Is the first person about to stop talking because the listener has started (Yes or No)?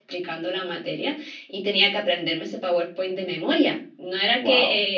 No